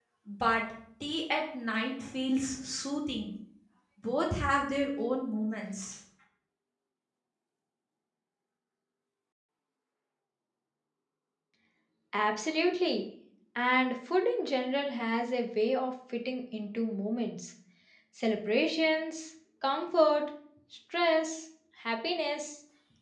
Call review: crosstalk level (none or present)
none